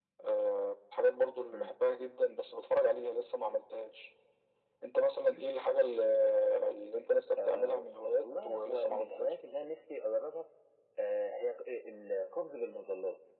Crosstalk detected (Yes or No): Yes